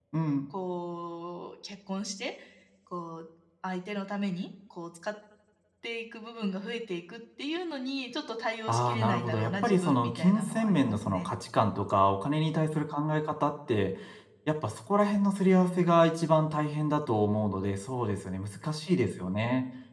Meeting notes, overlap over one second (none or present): present